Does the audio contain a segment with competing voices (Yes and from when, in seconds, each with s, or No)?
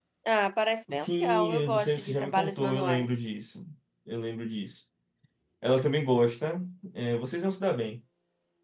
Yes, from 0.9 s